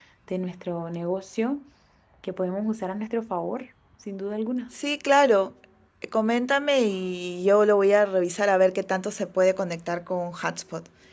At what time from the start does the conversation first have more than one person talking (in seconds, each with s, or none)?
none